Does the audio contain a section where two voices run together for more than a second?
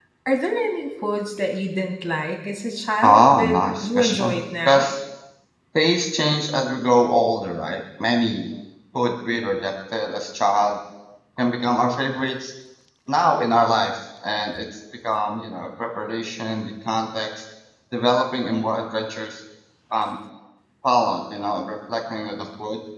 Yes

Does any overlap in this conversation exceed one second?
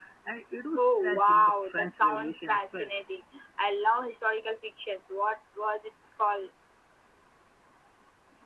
Yes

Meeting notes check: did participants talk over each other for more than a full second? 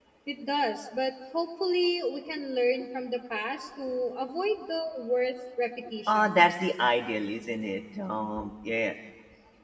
No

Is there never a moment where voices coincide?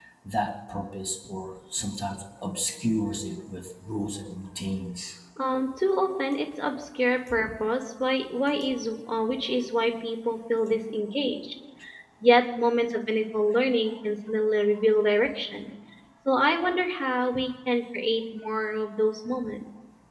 Yes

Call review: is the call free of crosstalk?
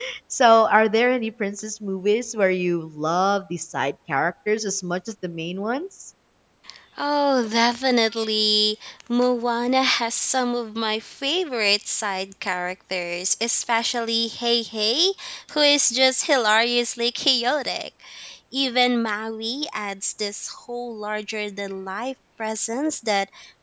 Yes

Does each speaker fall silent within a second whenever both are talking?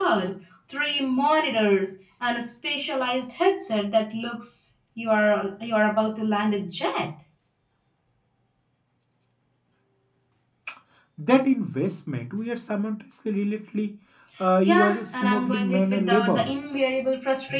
No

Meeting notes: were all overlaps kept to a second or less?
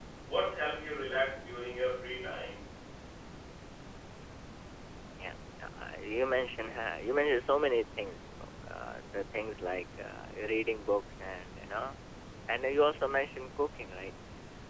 Yes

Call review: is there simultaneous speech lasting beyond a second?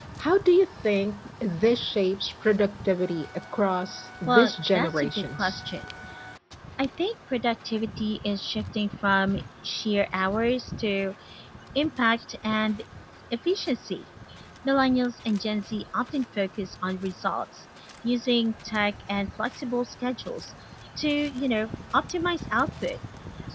Yes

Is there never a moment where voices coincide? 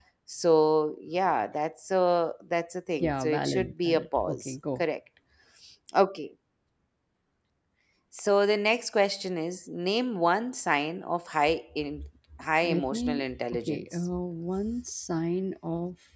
No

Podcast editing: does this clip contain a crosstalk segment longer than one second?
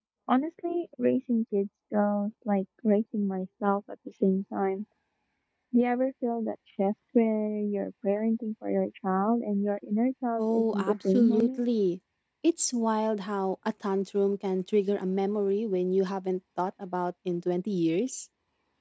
Yes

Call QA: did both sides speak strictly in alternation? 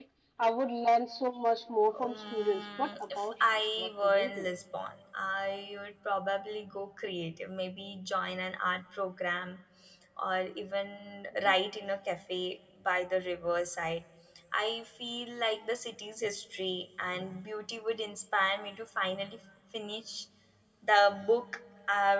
No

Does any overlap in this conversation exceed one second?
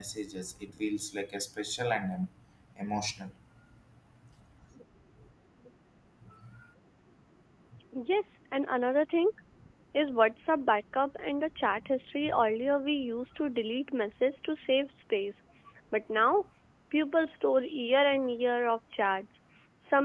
No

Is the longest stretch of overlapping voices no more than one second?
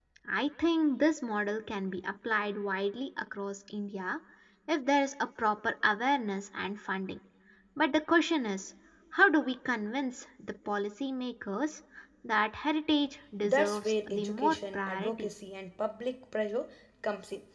No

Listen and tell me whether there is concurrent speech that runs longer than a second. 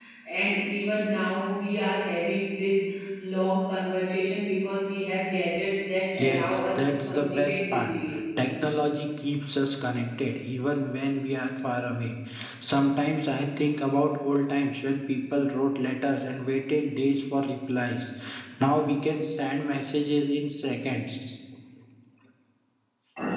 Yes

